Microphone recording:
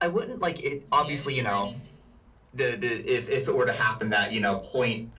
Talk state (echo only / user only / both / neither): both